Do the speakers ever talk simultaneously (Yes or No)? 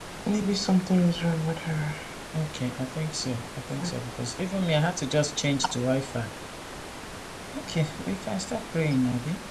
No